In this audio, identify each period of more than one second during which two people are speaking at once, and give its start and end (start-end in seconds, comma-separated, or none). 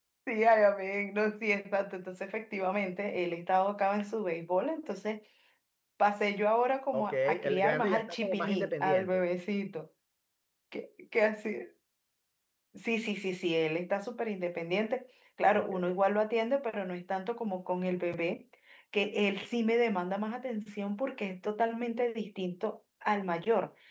6.9-9.2